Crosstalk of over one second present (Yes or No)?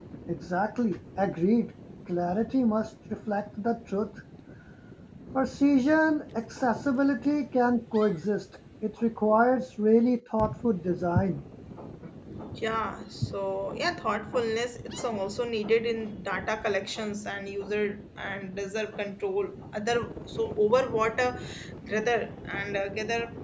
No